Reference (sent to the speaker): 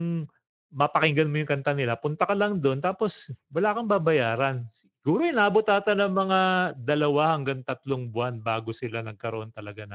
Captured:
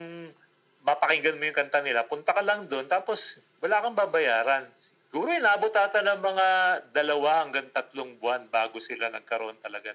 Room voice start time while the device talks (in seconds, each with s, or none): none